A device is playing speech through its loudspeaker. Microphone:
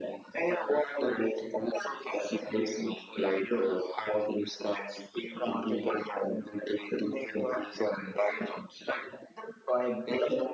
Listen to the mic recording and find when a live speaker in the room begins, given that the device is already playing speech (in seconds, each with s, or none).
none